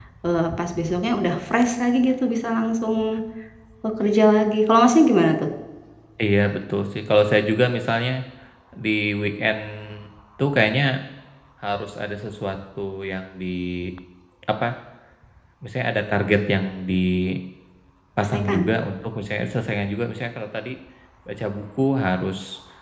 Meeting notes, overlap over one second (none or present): none